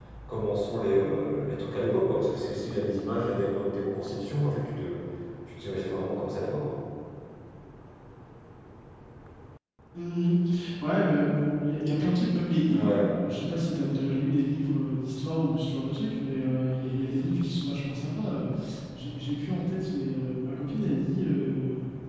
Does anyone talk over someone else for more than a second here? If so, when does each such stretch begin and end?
none

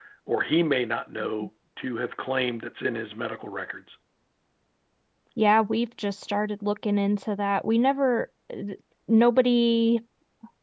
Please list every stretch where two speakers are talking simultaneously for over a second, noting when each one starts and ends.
none

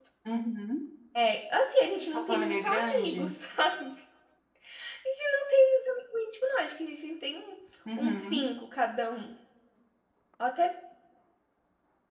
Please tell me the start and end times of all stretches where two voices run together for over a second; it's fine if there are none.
2.1-3.3

